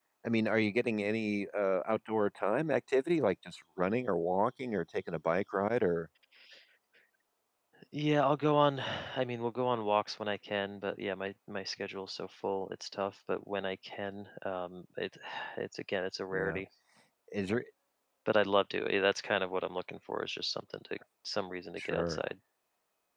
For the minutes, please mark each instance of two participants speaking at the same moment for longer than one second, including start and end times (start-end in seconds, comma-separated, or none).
none